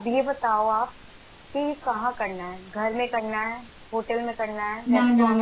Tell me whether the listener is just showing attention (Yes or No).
No